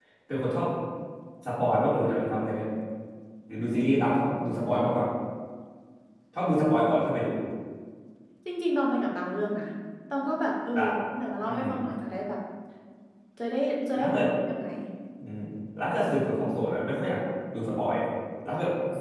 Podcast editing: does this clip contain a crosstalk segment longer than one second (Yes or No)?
No